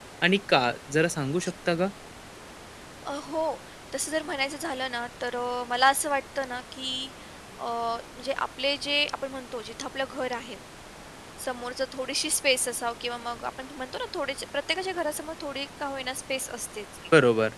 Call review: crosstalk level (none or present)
none